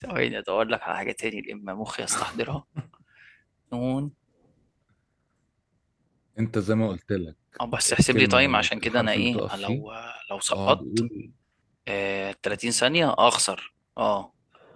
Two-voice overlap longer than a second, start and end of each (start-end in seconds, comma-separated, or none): 7.9-9.8